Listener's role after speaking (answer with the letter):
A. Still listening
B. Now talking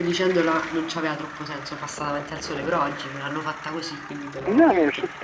B